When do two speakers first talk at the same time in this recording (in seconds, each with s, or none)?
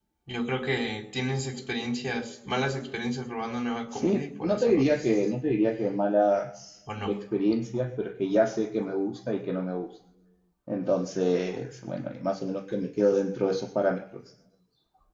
3.9 s